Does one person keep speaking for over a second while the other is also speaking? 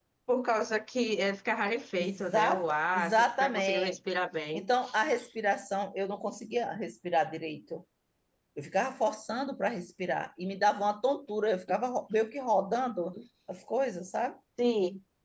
Yes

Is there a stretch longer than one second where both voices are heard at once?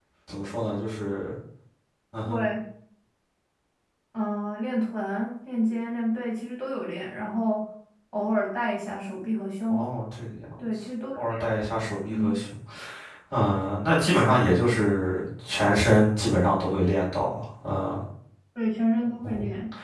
No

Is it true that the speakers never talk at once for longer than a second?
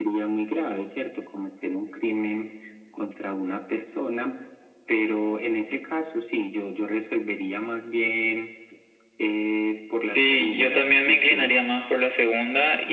No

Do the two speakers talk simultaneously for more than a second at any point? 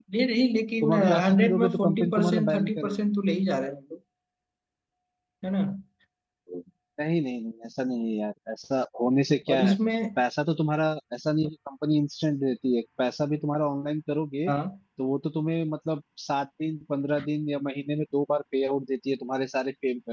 Yes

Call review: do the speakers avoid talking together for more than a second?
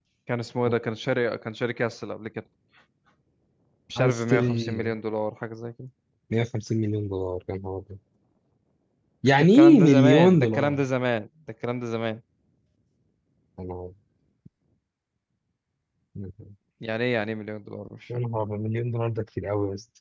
No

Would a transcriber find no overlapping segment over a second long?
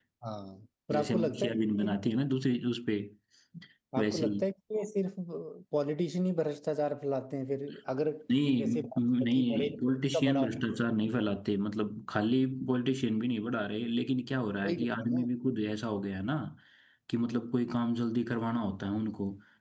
No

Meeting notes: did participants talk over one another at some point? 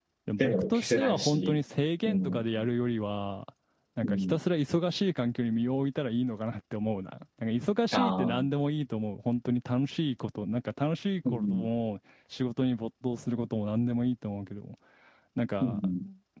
Yes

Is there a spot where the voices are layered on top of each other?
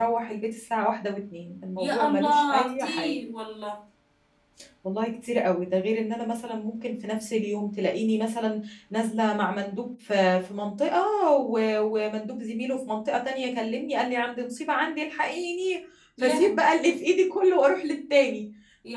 Yes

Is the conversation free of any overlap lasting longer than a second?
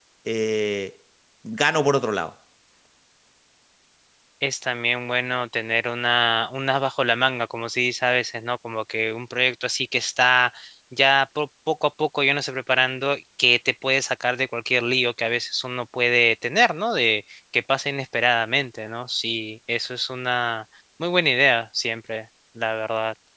Yes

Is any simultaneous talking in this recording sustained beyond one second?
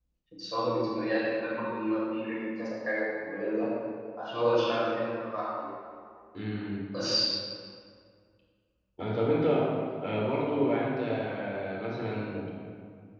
No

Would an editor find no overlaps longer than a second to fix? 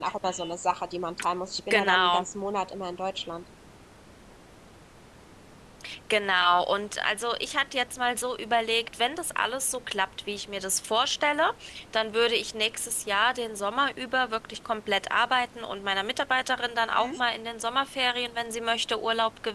Yes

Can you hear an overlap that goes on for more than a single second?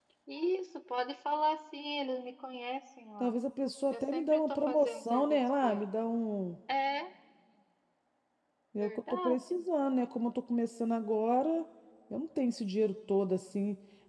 Yes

